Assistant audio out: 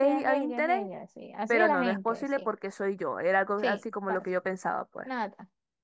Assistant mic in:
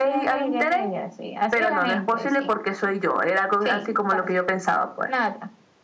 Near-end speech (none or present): none